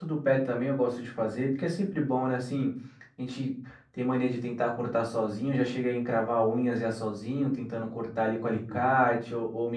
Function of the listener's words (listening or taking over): listening